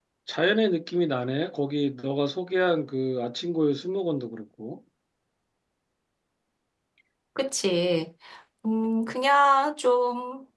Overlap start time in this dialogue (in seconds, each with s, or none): none